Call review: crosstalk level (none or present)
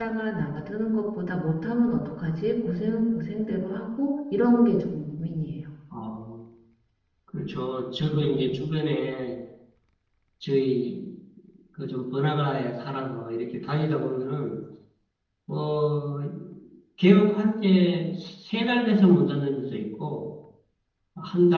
none